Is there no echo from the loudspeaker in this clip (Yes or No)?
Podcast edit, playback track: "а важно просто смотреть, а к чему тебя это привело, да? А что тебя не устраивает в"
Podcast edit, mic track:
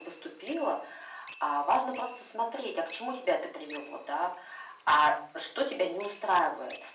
No